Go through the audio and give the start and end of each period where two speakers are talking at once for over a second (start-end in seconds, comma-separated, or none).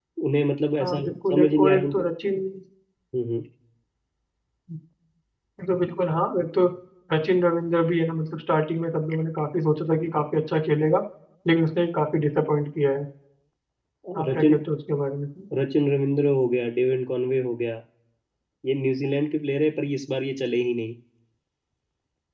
0.8-2.1